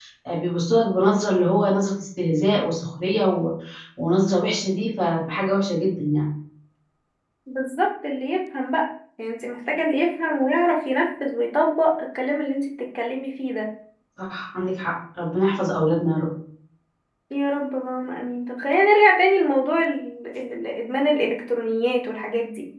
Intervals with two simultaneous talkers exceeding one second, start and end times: none

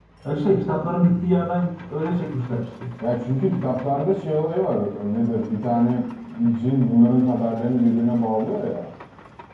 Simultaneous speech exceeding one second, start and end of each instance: none

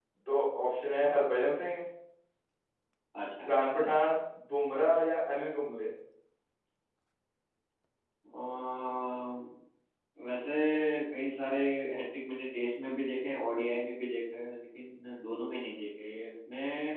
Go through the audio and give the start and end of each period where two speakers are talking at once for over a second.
none

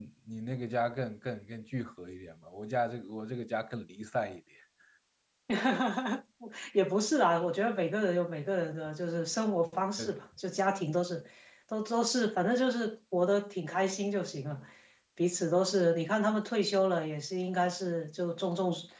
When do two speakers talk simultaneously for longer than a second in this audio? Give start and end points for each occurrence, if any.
none

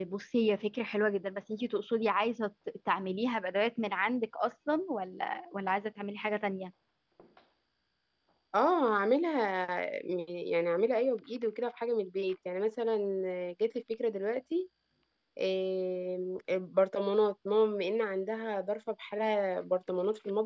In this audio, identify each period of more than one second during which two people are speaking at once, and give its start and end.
none

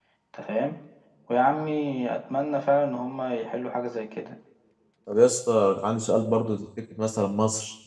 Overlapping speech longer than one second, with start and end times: none

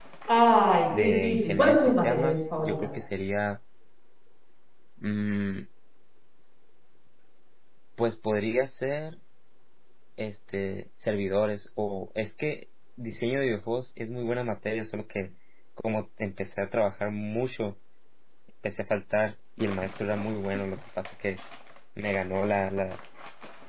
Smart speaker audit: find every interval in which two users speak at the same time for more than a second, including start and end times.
1.0-2.9

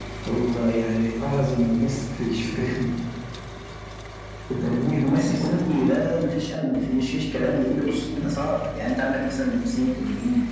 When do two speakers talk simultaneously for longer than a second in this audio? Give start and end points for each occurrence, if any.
none

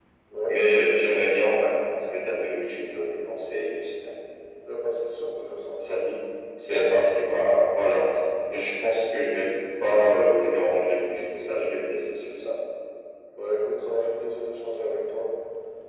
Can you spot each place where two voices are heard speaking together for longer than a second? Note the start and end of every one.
none

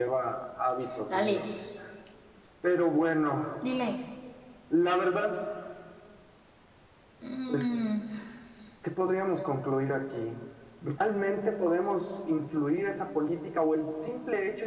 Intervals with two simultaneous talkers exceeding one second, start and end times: none

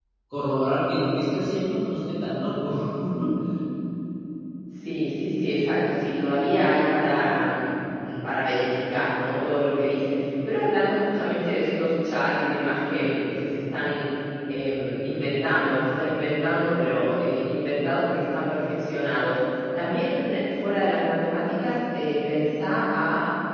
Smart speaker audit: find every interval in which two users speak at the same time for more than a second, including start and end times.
none

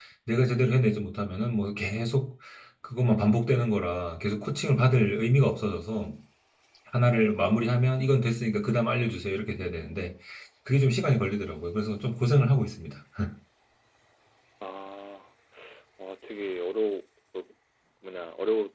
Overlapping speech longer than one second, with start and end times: none

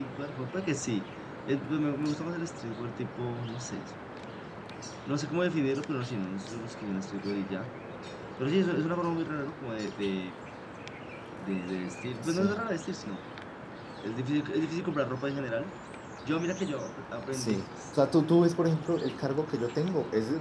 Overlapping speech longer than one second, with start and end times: none

